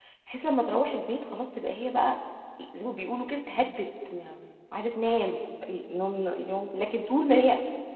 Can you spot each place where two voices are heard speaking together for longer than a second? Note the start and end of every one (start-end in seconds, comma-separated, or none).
none